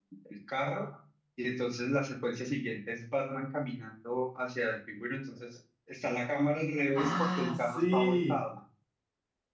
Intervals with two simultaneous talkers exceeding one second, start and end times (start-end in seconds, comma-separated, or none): 7.0-8.4